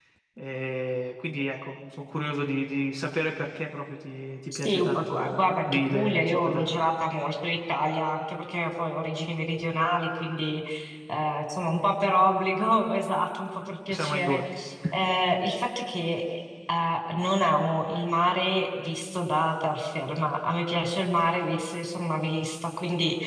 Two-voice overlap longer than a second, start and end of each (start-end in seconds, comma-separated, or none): 4.5-6.7